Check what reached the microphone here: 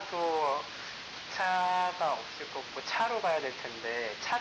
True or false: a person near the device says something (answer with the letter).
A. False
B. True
A